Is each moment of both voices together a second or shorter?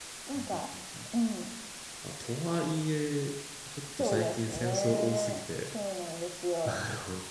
No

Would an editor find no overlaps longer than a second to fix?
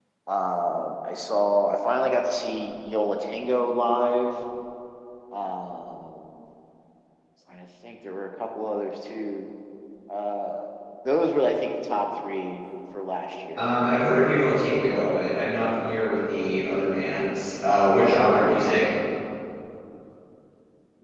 Yes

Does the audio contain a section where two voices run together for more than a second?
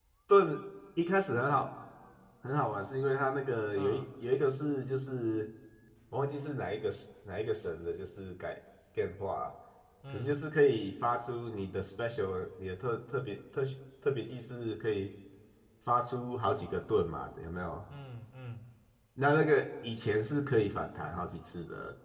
No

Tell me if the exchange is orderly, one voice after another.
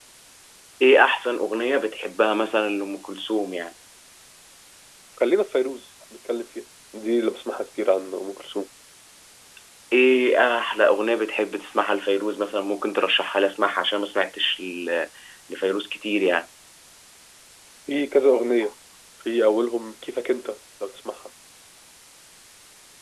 Yes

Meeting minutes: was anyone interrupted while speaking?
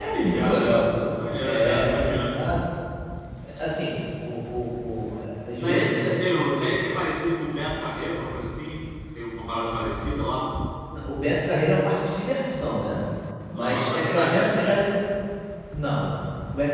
Yes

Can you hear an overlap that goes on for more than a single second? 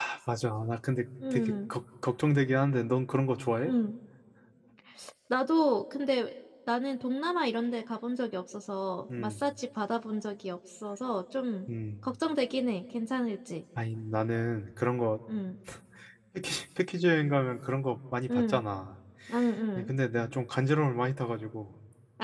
No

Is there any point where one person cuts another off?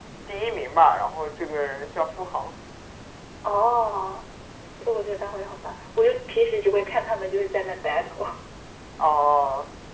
No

